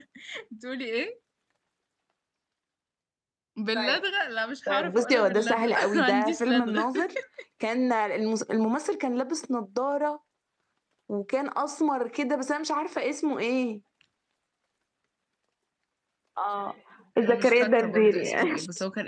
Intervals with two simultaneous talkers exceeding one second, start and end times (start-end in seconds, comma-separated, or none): 4.7-6.9, 17.2-18.6